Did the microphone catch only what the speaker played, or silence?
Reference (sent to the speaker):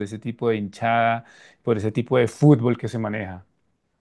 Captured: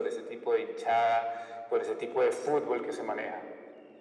Yes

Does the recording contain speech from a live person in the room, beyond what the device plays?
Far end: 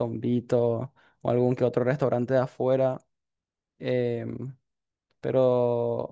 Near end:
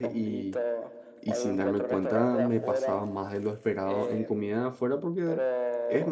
Yes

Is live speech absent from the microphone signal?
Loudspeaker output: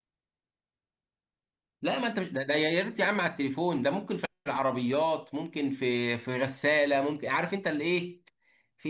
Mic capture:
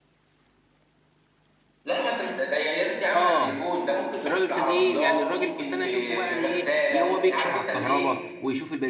No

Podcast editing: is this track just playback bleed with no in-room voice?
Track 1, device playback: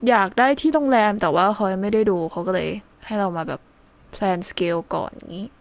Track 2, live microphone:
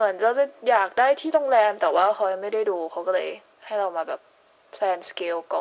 Yes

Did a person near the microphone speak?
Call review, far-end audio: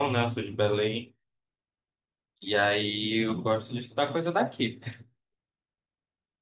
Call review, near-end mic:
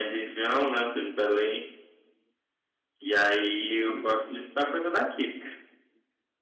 No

